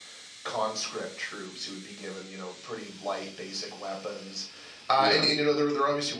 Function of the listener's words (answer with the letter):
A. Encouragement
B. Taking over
A